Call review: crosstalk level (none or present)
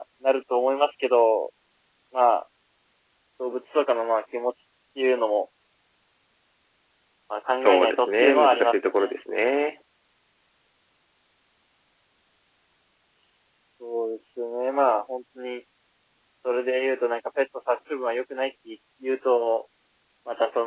present